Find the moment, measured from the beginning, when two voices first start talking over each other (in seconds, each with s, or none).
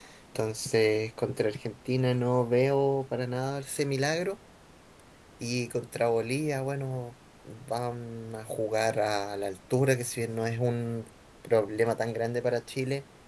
none